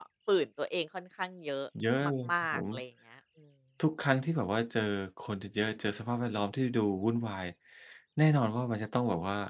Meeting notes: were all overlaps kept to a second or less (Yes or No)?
Yes